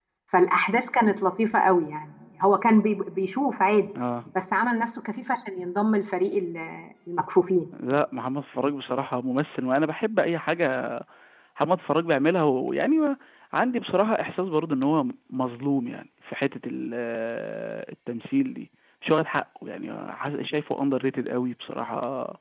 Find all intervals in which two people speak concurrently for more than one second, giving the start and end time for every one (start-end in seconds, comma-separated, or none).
none